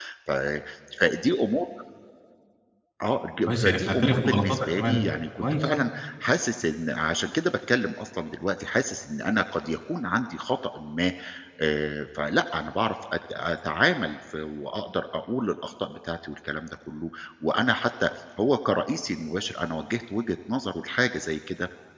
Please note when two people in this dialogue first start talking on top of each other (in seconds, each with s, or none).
3.5 s